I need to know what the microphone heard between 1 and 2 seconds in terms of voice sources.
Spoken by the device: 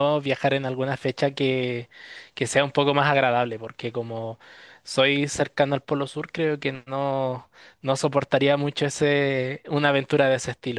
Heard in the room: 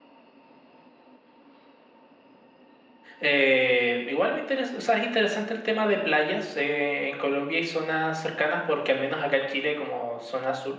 neither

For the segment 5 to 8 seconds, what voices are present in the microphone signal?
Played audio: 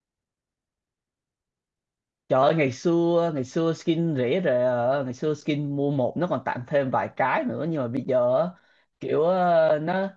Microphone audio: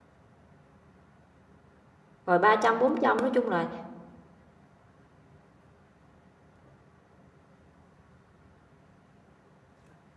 neither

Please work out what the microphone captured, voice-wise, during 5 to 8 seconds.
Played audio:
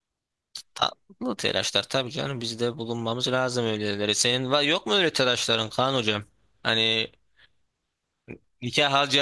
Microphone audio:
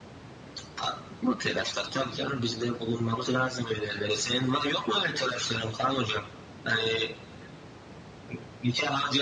echo only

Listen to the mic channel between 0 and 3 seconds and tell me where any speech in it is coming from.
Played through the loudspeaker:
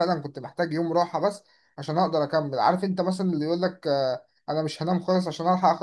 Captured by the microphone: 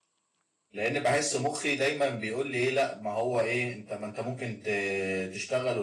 user only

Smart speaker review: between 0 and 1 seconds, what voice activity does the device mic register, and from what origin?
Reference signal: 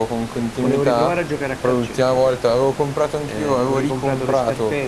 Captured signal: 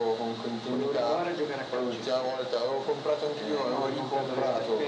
echo only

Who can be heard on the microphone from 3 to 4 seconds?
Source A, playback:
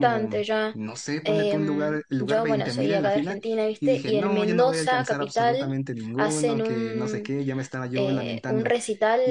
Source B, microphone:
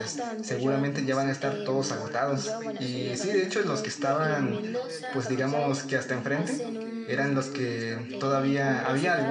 both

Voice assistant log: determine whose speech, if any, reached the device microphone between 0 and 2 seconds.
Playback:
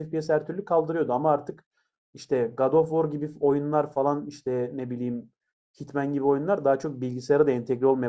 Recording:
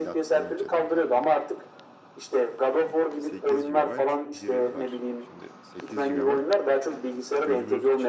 both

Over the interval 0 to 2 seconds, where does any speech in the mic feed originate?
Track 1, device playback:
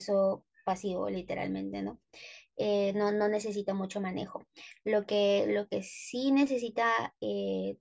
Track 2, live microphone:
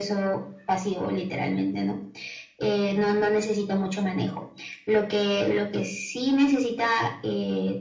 echo only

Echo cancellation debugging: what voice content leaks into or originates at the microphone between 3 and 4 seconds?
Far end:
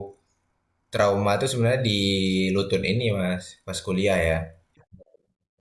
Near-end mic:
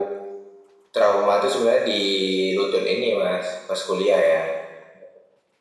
echo only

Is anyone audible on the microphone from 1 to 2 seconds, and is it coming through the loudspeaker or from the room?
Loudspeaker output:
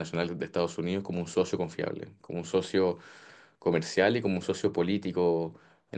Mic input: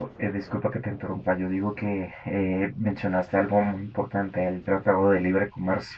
user only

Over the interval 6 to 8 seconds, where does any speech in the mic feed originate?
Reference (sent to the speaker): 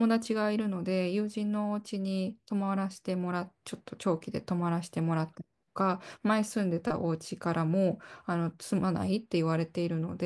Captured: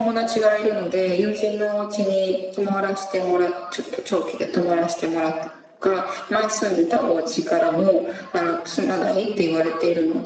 echo only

